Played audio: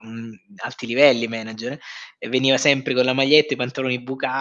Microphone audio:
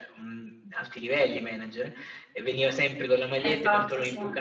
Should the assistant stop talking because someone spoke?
Yes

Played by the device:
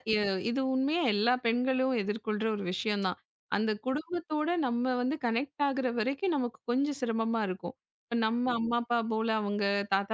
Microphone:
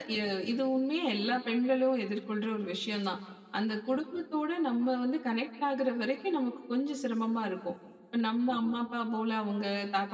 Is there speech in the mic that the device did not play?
No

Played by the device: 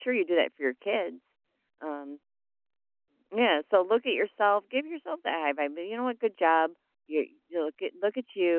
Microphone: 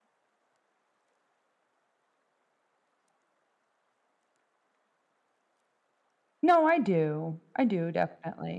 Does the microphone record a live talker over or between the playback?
Yes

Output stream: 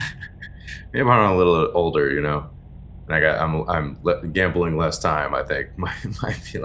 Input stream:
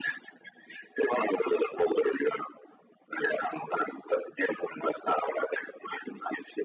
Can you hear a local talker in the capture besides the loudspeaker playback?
No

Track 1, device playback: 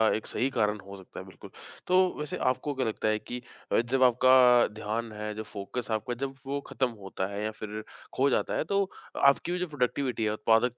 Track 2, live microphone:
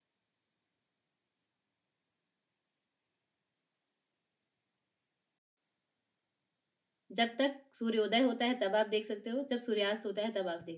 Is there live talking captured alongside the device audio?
Yes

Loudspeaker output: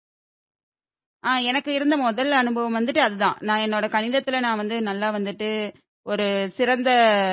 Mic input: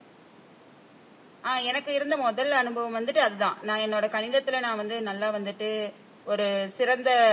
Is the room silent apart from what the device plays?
Yes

